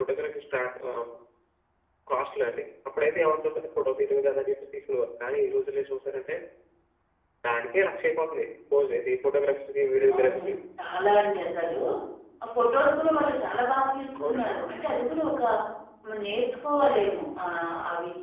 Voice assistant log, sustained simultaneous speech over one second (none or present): none